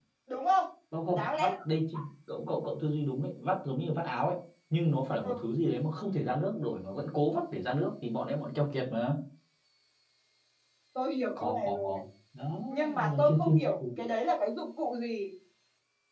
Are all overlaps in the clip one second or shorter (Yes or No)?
No